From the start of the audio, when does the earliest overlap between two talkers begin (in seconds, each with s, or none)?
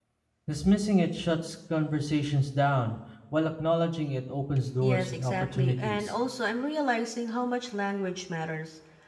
4.8 s